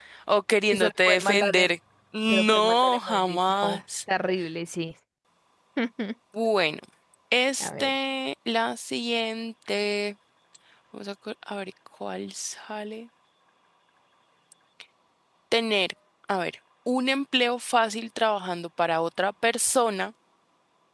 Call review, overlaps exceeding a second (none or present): present